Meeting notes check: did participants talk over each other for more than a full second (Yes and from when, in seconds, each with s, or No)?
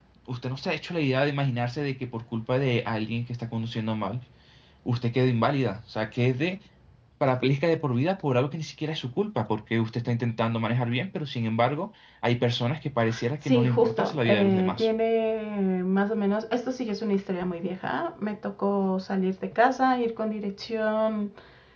Yes, from 13.4 s